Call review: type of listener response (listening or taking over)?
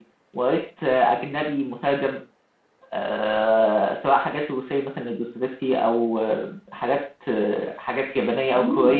listening